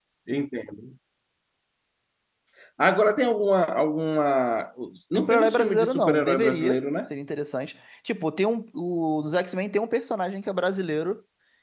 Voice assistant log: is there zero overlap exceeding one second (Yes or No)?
No